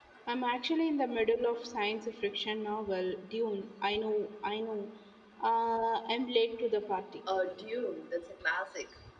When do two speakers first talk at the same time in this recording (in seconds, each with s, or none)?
none